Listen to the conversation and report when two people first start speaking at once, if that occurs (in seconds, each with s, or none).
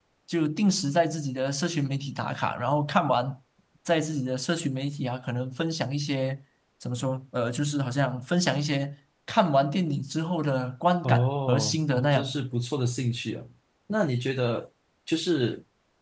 11.0 s